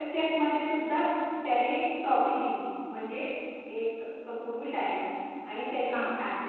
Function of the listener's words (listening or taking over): listening